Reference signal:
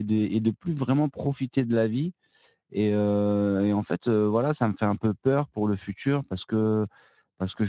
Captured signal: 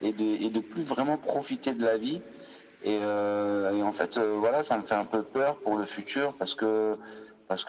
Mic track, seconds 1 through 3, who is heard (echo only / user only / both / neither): echo only